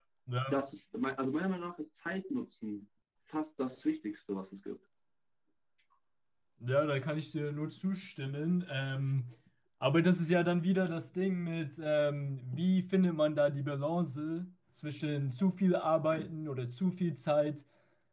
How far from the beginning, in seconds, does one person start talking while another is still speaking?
none

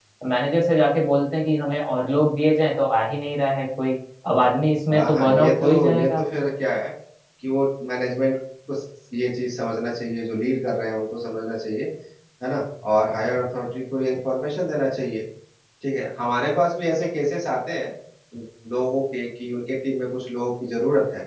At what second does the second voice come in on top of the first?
4.9 s

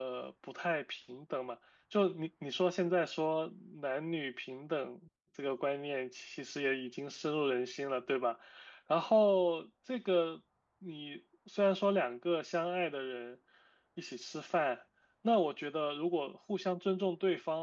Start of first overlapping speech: none

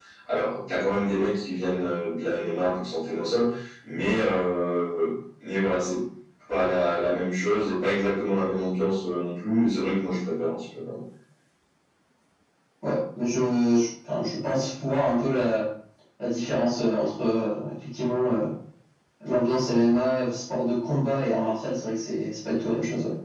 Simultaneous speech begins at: none

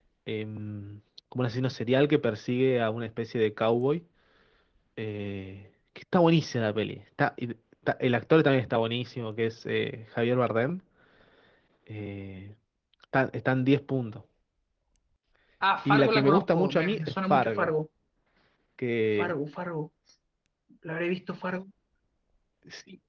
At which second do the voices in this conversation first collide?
15.8 s

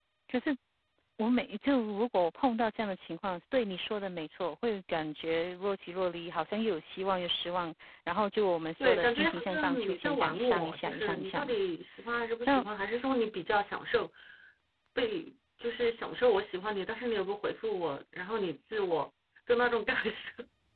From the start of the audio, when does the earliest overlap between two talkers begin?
8.8 s

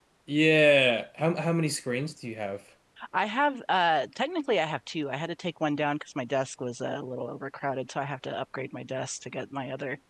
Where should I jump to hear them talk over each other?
none

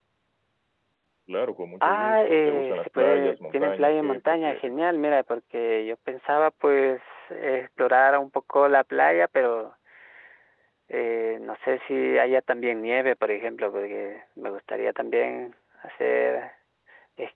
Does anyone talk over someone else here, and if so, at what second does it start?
1.8 s

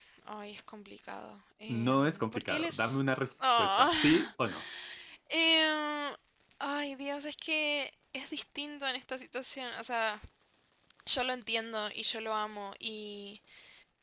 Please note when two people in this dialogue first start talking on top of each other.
1.7 s

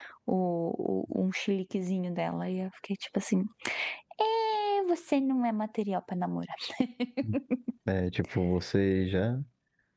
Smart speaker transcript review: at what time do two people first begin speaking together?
none

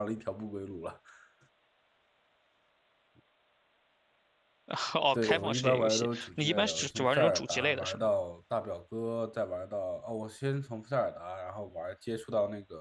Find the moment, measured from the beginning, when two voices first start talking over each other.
5.1 s

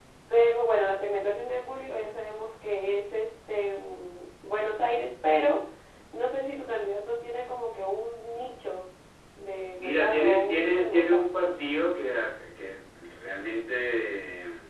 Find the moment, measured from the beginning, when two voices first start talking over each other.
9.8 s

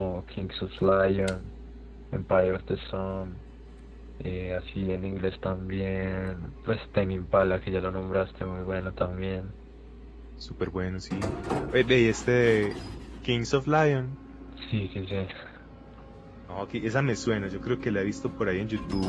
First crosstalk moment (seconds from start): none

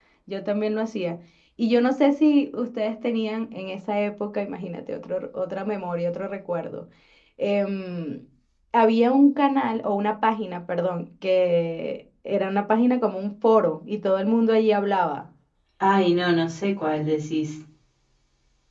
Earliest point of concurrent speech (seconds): none

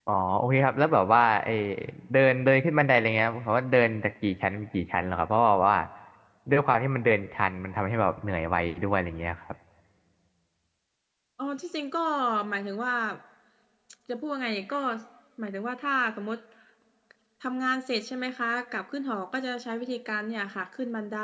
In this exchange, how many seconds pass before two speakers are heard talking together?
none

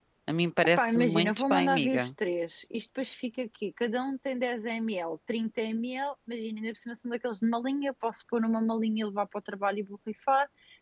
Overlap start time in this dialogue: 0.8 s

